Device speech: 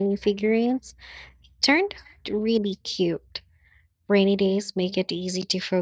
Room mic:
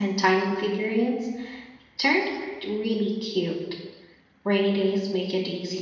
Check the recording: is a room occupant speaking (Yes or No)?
No